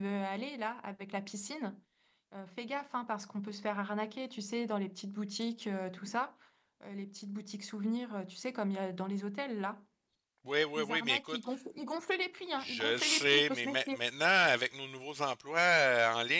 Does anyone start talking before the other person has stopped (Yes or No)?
Yes